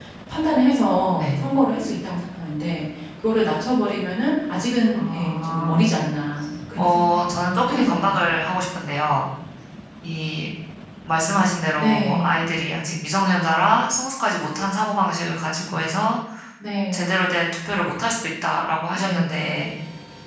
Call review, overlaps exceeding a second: present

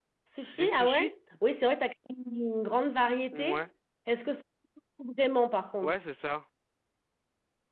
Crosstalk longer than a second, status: none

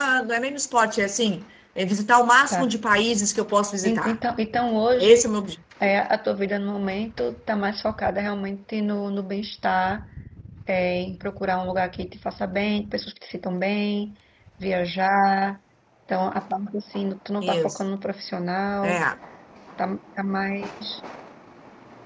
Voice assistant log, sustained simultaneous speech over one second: none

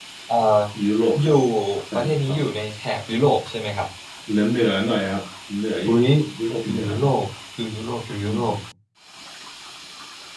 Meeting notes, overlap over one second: none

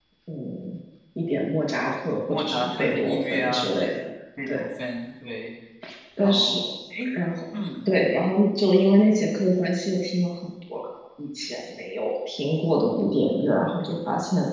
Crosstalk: present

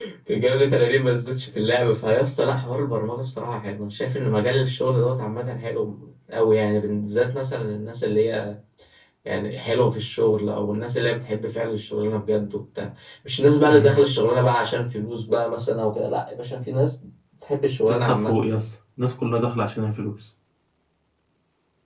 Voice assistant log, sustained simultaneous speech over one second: none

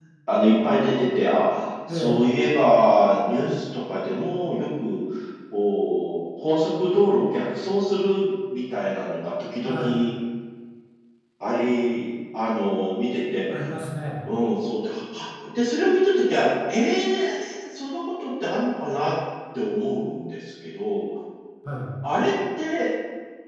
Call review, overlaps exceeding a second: none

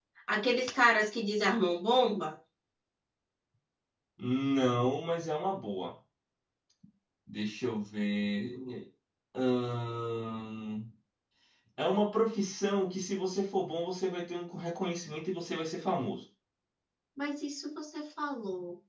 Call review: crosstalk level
none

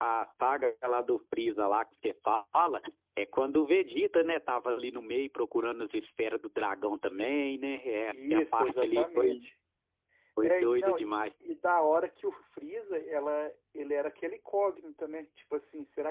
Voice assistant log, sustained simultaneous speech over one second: present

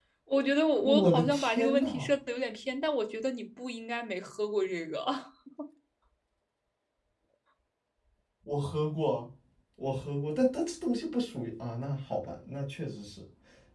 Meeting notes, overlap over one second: present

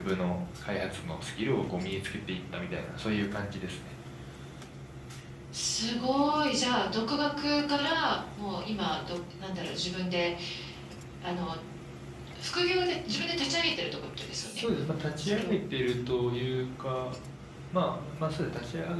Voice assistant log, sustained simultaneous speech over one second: none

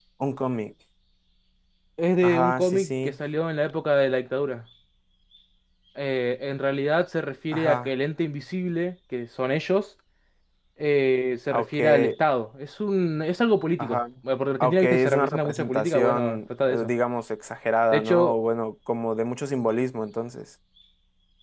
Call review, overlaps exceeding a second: present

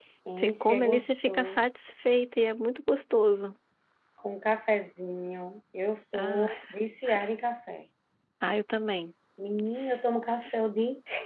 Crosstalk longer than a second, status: present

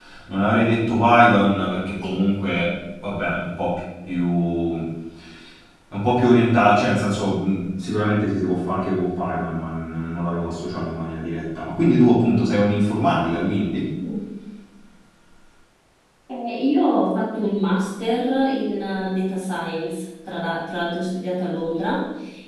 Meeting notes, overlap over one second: none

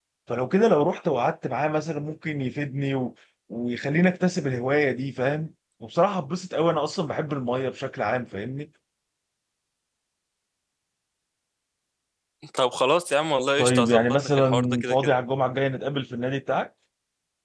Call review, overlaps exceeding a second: present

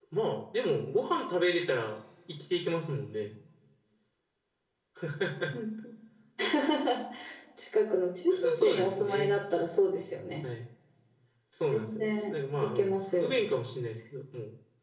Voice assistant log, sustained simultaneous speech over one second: present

